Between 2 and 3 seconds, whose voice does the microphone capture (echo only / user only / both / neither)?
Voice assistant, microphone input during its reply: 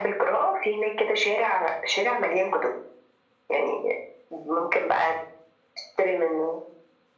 echo only